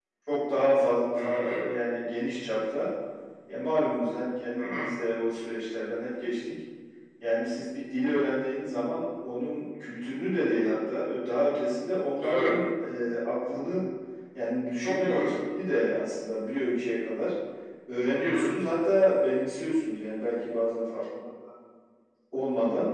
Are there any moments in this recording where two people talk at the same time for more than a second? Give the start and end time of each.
none

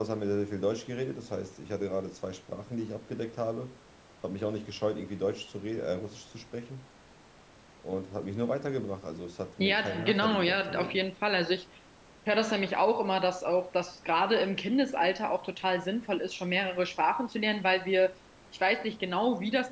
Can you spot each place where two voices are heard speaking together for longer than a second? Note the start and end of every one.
9.6-11.0

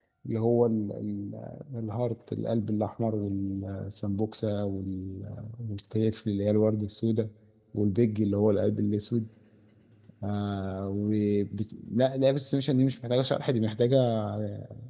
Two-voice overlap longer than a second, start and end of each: none

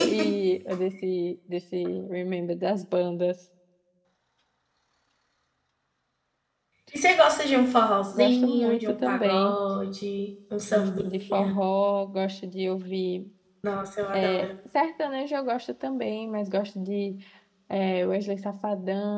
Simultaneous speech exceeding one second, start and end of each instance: 8.1-9.6

